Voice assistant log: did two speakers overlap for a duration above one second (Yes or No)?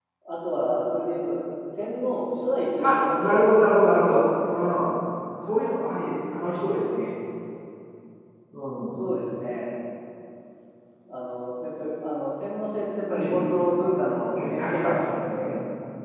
Yes